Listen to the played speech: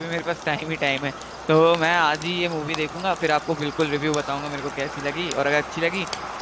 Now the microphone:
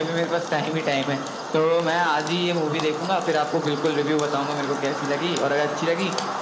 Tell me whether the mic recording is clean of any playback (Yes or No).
No